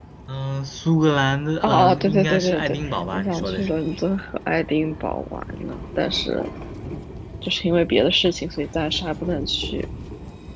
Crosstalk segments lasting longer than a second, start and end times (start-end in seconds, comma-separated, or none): 1.6-3.8